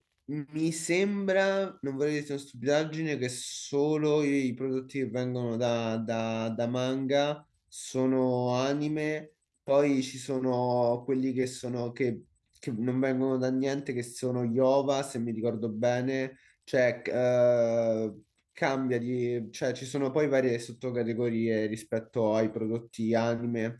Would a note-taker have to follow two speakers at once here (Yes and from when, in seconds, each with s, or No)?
No